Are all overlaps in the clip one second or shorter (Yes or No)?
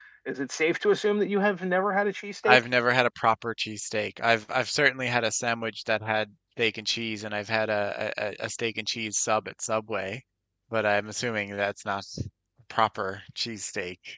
Yes